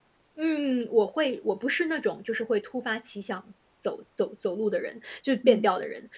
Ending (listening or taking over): listening